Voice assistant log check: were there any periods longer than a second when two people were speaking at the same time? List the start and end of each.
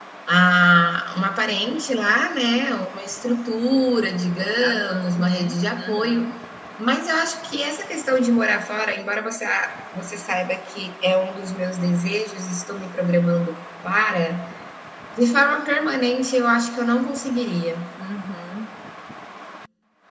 4.6-6.3

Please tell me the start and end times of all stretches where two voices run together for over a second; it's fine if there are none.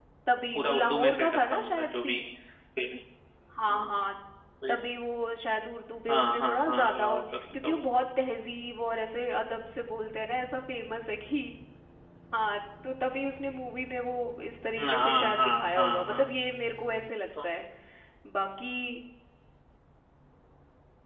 0.6-2.2, 6.1-7.8, 14.8-16.3

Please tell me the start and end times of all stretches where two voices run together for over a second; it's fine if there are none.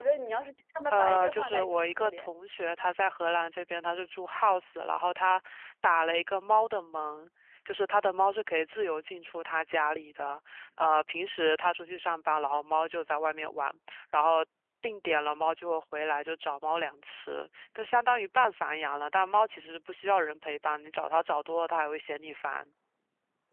0.9-2.3

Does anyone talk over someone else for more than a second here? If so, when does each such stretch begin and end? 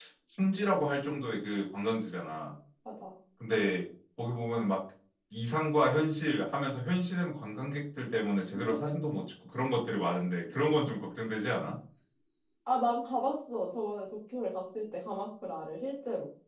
none

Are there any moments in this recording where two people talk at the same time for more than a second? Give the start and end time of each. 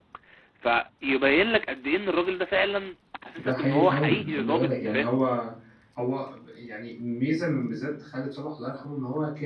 3.5-5.2

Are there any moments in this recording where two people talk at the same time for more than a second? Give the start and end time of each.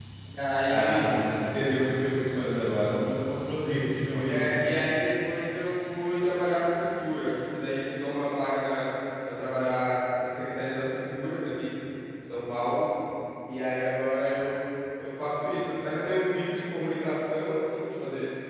none

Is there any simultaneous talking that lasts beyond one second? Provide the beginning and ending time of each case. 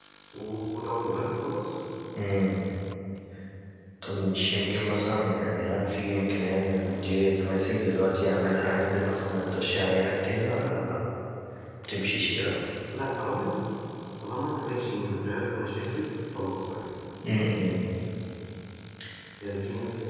none

